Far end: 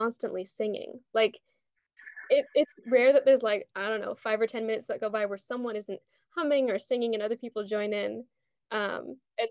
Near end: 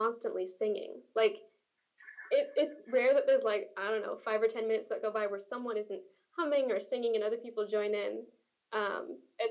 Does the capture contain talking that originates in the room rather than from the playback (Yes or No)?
No